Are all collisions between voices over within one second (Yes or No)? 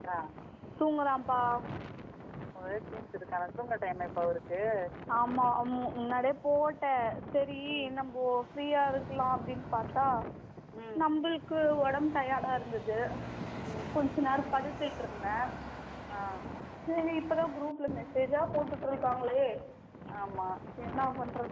Yes